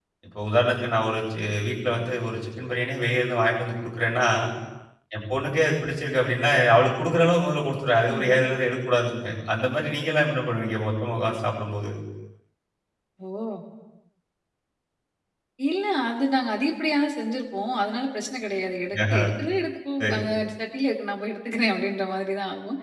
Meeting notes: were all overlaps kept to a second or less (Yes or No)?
Yes